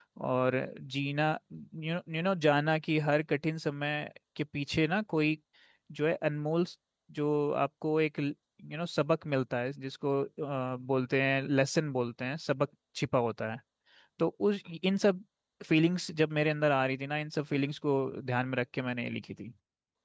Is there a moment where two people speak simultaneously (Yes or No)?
No